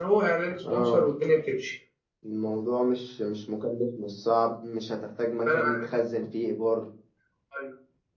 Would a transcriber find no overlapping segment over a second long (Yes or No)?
Yes